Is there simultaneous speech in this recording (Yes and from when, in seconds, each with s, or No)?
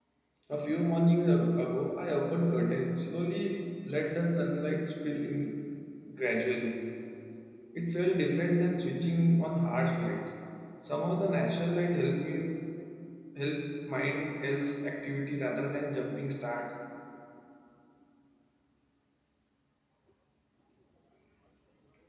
No